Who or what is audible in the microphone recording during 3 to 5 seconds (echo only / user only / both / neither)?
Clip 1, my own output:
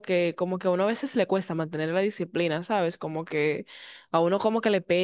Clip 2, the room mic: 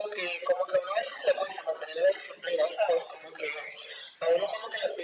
echo only